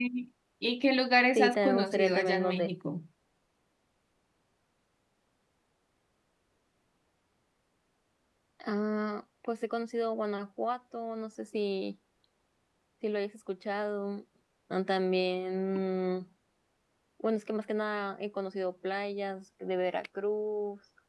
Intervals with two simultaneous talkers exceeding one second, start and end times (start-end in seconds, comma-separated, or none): 1.4-2.7